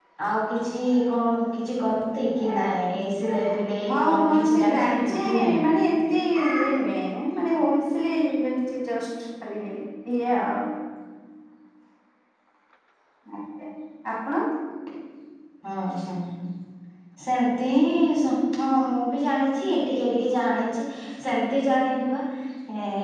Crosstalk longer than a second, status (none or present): present